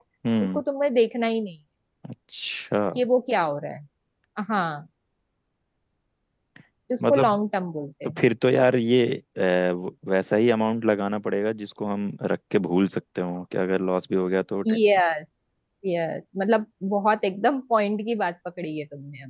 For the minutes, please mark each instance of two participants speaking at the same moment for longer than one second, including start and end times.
none

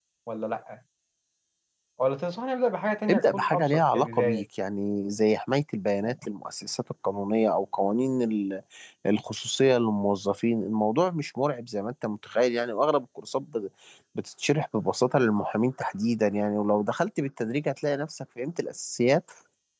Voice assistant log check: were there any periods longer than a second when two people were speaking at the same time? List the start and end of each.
3.1-4.4

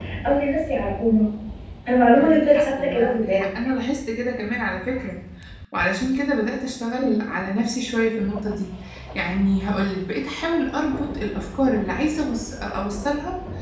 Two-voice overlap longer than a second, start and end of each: 2.1-3.5

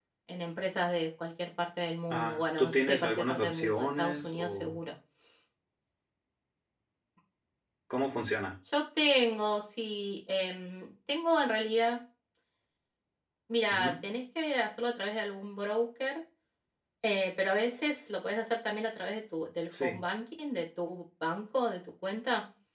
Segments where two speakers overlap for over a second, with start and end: 2.1-4.8

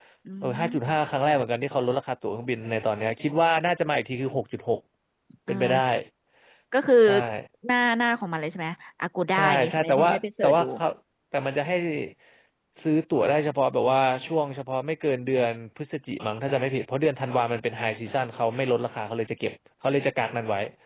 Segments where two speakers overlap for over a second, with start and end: 9.3-10.7

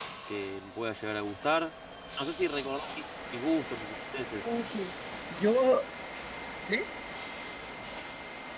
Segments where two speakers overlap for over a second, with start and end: none

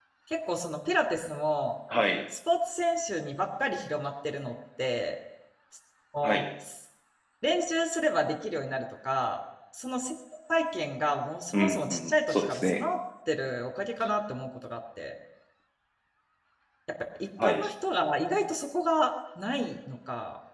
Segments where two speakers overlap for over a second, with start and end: 11.5-12.9

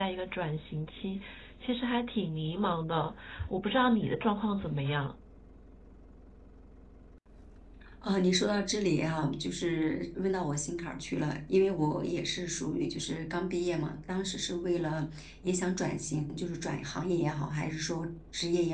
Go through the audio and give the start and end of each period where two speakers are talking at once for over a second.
none

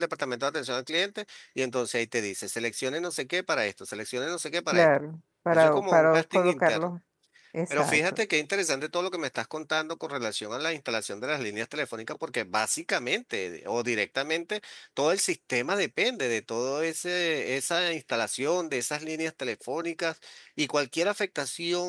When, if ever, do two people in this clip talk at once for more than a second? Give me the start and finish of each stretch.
5.5-6.9

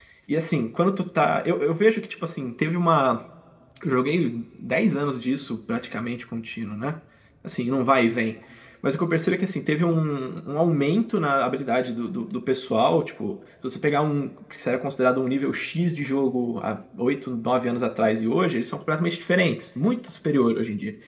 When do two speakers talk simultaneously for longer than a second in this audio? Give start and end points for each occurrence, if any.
none

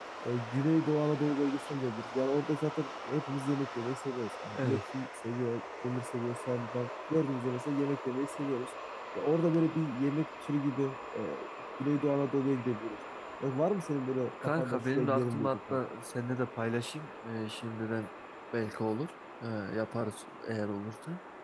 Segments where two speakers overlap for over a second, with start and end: 14.4-15.8

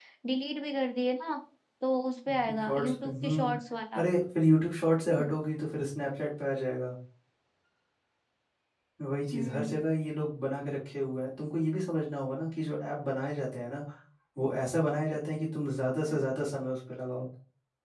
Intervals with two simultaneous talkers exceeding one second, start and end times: 2.3-3.5

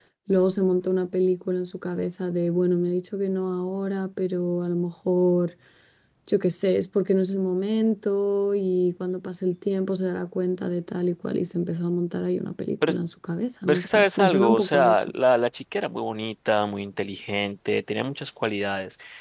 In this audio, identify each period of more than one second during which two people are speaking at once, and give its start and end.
13.7-15.1

